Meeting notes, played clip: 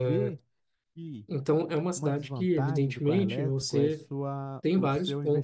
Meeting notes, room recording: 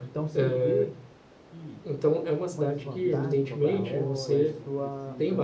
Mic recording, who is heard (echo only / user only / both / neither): both